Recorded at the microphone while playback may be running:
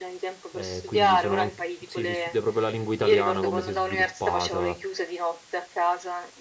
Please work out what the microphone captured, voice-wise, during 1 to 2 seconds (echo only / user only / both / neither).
both